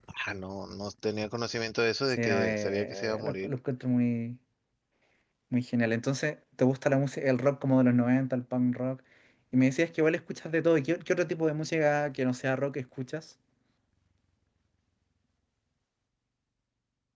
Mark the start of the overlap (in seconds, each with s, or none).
2.1 s